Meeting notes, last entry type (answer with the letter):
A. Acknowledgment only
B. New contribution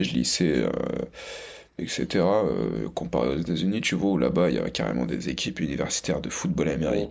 A